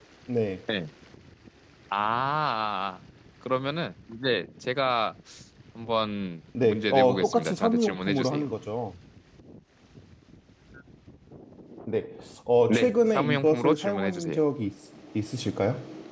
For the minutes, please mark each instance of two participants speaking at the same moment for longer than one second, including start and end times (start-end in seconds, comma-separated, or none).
6.6-8.5, 12.7-14.4